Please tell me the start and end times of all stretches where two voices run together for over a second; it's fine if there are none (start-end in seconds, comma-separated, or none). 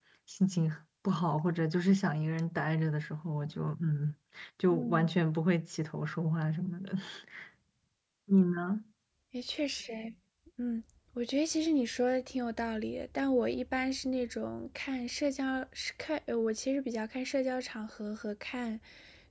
none